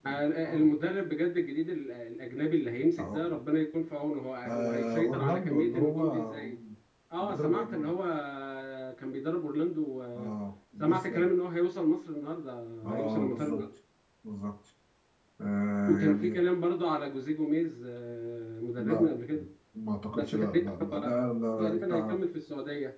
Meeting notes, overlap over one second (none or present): present